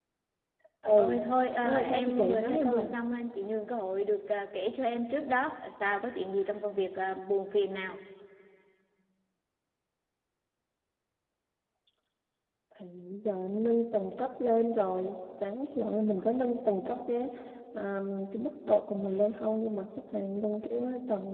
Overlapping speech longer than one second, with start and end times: 1.6-2.9

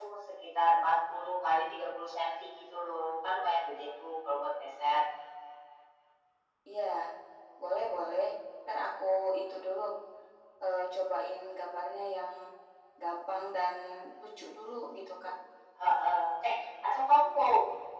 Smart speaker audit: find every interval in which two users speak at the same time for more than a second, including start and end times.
none

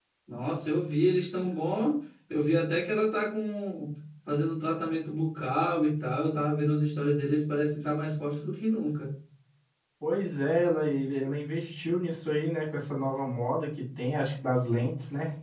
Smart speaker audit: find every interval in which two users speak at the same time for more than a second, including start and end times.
none

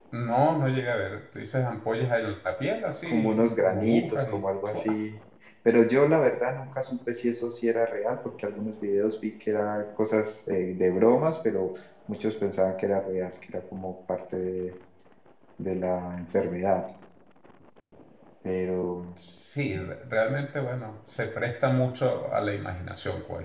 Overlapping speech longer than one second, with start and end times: 3.0-5.0

